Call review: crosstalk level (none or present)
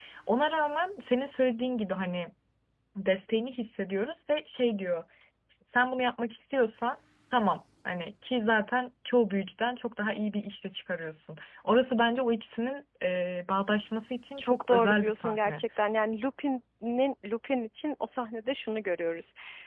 present